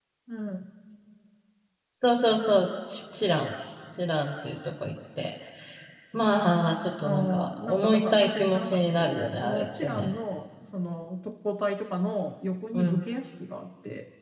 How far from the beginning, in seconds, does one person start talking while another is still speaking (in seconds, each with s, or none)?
7.0 s